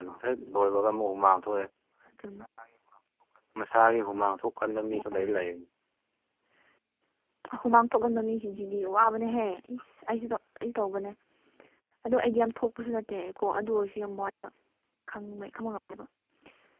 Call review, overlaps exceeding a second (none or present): none